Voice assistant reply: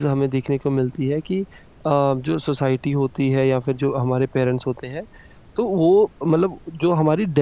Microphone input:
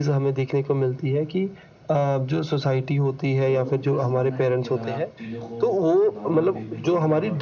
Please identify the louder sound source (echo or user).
echo